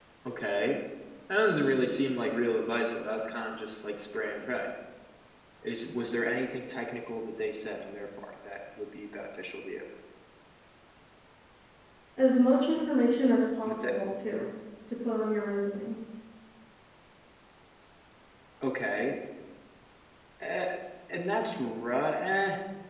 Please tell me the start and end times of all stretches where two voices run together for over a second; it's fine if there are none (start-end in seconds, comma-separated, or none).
none